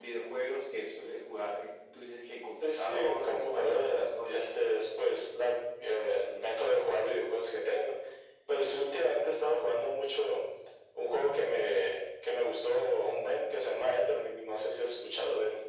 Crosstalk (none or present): present